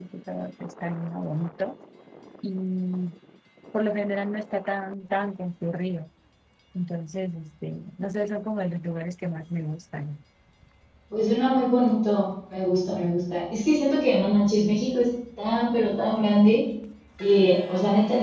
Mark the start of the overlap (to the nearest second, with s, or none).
none